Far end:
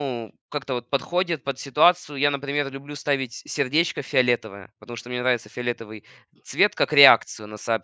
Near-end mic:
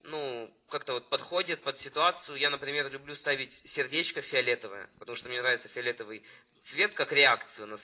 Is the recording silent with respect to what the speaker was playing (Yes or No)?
No